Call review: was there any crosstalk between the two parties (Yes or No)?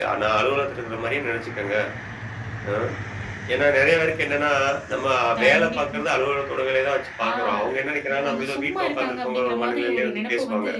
Yes